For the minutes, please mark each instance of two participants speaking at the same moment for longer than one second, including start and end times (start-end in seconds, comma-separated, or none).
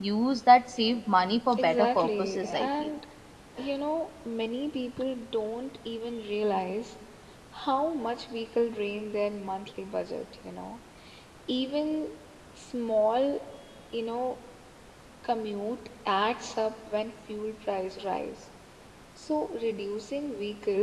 1.6-2.9